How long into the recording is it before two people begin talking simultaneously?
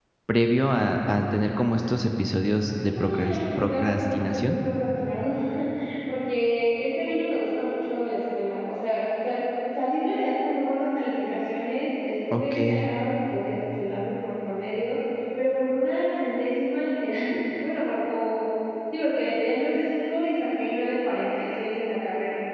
2.9 s

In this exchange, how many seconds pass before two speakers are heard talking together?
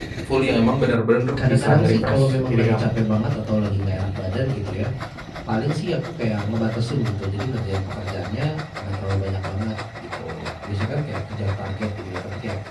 1.4 s

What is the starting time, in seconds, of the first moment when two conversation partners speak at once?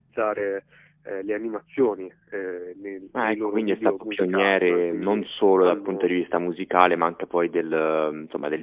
3.1 s

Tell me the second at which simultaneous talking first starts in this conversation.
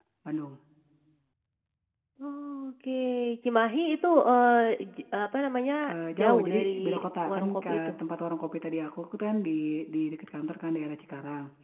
5.9 s

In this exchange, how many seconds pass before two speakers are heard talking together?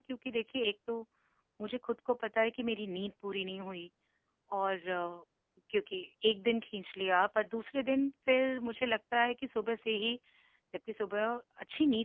none

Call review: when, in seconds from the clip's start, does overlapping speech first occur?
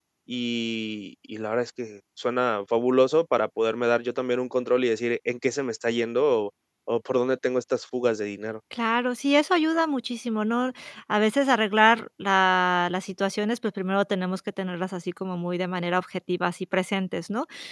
none

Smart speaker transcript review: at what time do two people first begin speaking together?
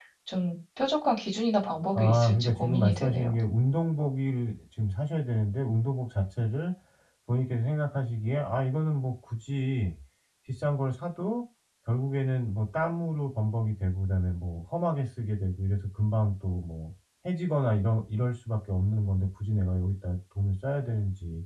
2.0 s

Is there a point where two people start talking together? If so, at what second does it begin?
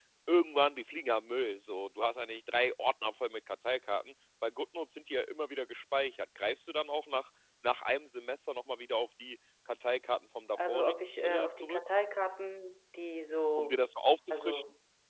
10.6 s

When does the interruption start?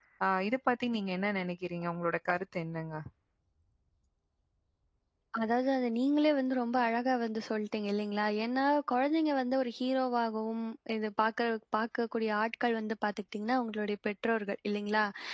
none

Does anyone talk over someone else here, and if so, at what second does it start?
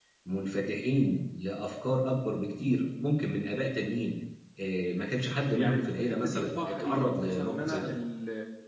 5.5 s

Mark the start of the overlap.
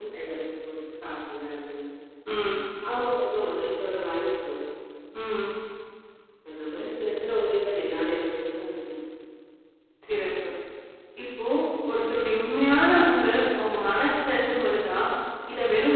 none

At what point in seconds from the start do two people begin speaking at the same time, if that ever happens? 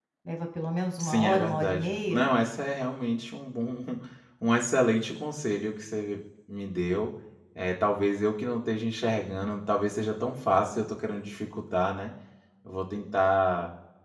1.0 s

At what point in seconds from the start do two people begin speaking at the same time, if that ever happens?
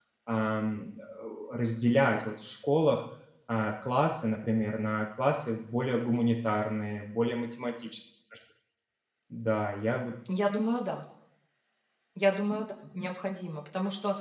none

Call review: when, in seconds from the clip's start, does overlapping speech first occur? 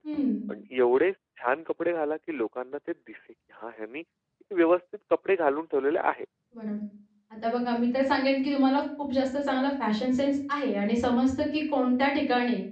none

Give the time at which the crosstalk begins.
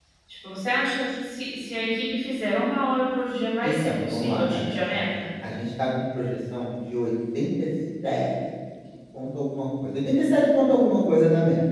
3.6 s

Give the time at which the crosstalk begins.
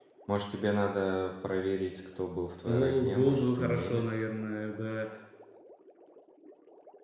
2.7 s

